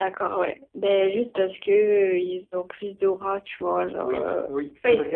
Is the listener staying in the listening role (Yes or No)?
No